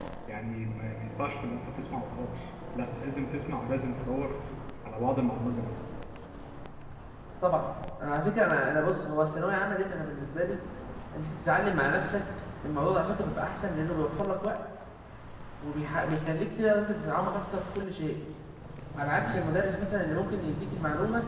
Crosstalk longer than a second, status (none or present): none